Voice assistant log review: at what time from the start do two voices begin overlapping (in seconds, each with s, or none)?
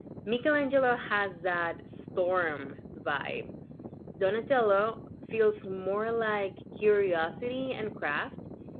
none